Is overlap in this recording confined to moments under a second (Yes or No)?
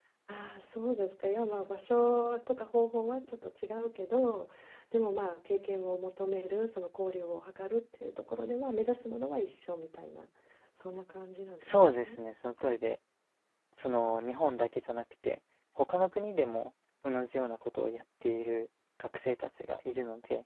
Yes